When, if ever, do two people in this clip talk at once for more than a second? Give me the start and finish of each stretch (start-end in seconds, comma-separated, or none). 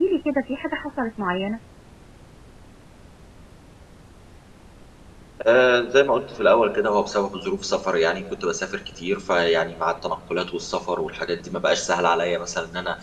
none